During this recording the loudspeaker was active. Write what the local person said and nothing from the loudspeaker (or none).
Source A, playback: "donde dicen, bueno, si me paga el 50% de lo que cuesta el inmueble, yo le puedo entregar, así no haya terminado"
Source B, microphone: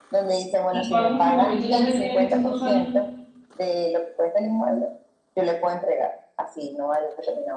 ¿Y cuántos apartamentos ya has vendido en estos dos años?